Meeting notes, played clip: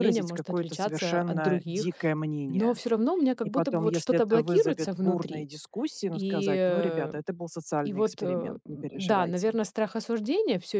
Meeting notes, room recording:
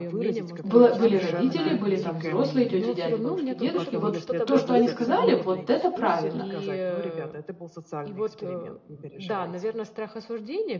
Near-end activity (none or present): present